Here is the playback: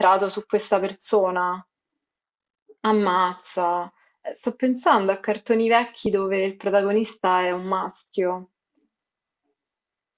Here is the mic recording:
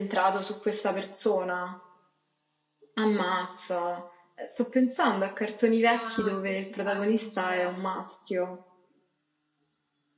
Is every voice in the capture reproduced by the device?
No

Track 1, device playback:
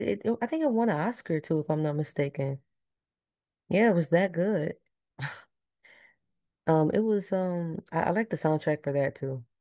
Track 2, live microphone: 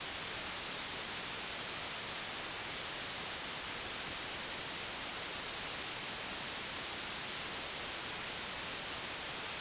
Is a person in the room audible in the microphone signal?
No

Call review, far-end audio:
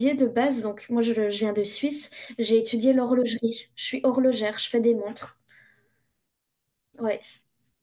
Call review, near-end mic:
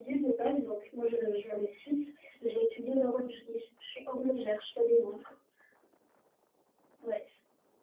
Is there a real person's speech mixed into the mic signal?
No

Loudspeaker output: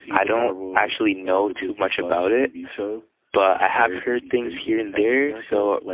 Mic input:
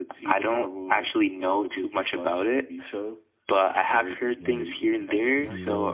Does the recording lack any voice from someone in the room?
No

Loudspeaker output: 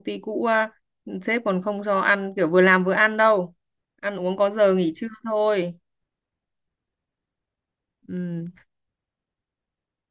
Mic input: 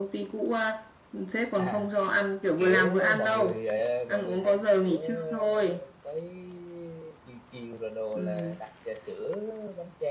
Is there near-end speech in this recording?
Yes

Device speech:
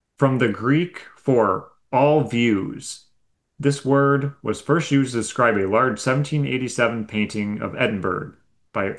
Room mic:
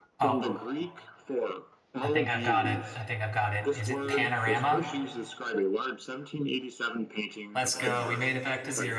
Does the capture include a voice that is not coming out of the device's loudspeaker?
Yes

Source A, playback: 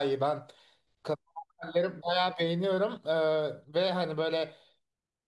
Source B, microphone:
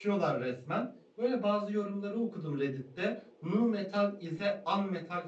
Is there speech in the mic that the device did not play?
Yes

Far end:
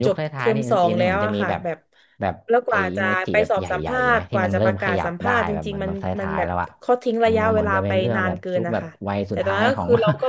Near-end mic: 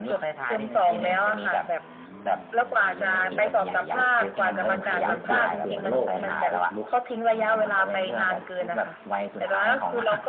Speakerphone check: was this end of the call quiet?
No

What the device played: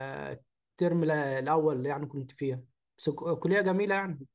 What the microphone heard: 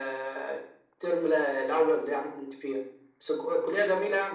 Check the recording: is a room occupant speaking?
No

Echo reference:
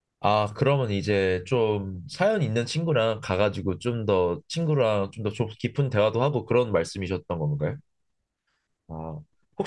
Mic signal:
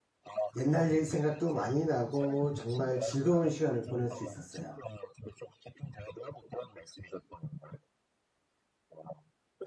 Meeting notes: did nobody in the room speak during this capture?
No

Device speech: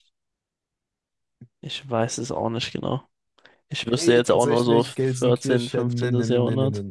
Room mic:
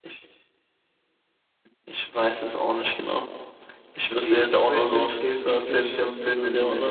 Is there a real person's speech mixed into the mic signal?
No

